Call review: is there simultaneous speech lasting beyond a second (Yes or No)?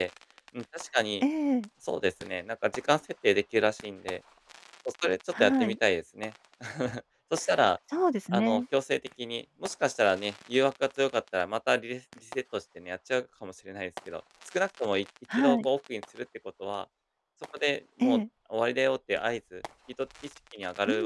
No